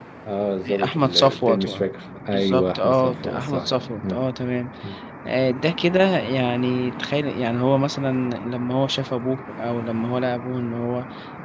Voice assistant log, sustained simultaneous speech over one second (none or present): present